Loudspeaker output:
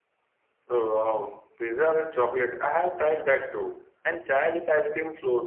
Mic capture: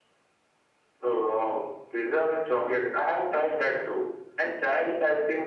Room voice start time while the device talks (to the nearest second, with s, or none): none